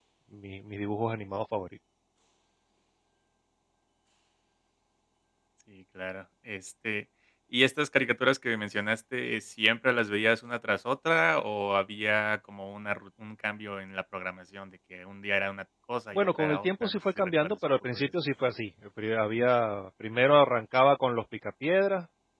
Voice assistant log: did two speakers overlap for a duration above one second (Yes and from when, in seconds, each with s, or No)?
Yes, from 16.1 s